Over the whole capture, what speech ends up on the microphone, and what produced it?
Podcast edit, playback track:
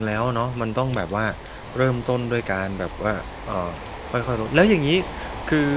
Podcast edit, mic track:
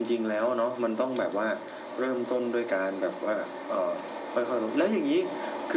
echo only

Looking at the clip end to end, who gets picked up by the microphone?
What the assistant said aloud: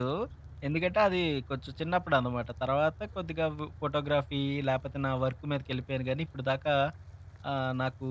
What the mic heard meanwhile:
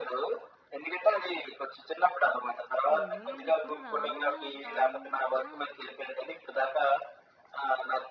both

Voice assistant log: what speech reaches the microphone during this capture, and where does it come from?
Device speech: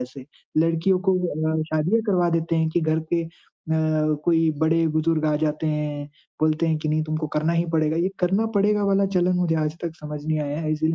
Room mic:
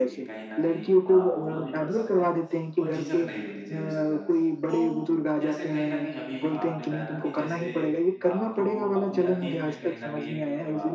both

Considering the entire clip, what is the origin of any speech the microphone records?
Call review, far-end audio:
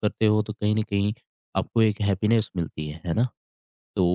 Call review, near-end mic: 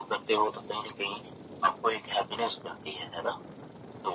echo only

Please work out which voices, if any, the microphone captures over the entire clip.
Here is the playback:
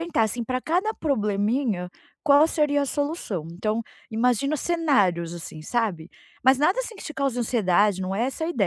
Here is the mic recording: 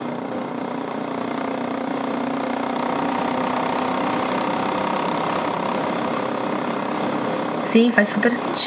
user only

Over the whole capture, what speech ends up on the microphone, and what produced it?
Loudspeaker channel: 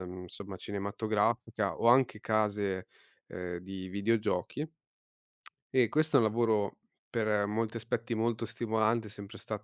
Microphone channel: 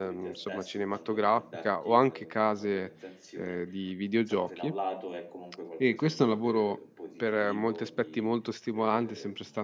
both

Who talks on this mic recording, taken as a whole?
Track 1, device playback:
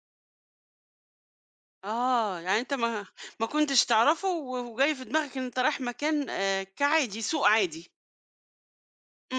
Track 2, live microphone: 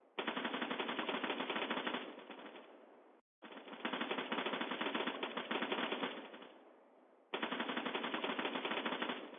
neither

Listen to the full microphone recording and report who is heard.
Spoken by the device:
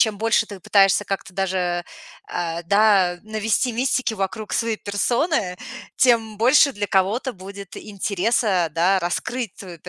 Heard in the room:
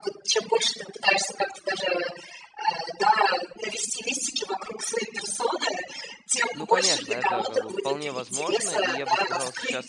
both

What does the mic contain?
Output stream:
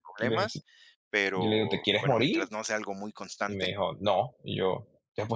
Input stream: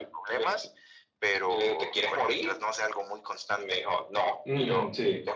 both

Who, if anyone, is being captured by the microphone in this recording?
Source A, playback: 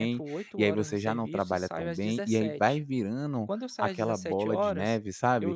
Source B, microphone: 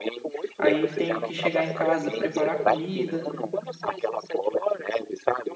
both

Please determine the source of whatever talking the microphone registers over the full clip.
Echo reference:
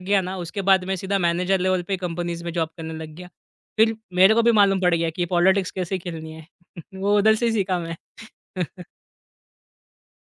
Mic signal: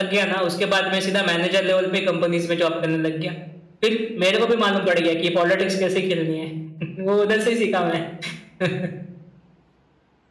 echo only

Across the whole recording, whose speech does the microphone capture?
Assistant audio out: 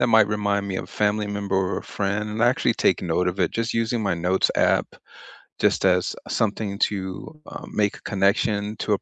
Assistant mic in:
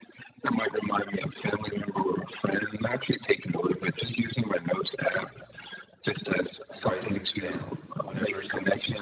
both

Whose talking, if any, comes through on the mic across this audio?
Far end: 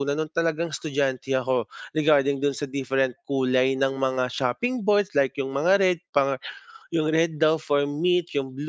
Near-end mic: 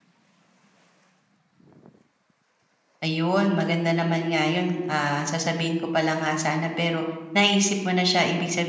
user only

